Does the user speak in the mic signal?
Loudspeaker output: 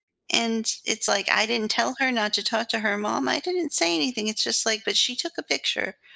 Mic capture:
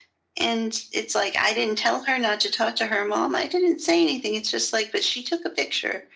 No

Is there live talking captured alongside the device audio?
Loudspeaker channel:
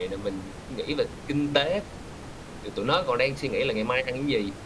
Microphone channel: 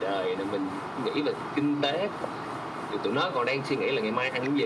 No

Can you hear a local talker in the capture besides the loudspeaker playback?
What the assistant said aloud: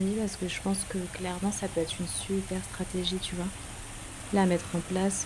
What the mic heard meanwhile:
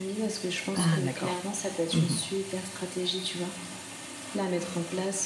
Yes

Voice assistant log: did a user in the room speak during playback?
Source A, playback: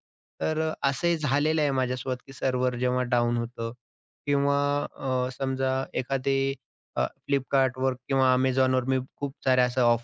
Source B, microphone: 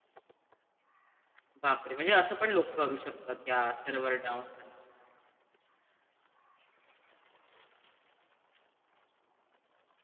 Yes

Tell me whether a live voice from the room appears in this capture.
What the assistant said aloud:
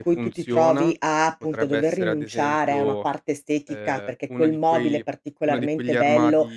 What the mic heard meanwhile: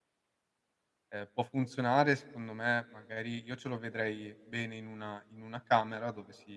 Yes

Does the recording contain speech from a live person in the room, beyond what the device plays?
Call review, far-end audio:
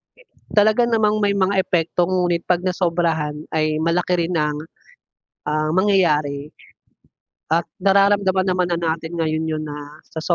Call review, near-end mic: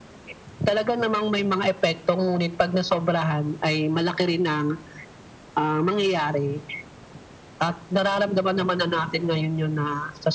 No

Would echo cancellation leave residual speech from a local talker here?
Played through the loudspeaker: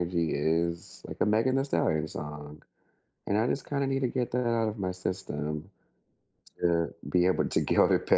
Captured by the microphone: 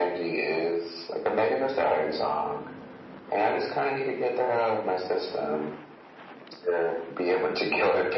No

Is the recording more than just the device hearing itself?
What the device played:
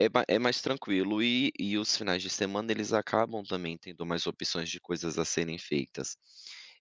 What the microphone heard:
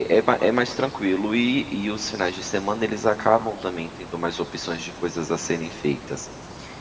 No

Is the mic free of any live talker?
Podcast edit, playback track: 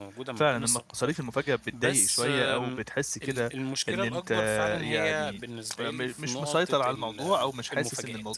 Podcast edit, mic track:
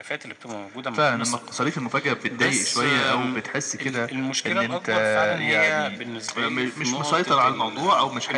Yes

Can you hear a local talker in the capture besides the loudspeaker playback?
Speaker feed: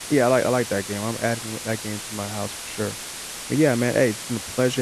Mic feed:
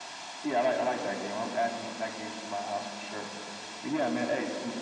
No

